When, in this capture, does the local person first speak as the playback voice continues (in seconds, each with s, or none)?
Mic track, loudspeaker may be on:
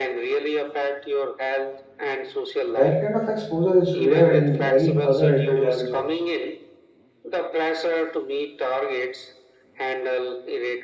2.7 s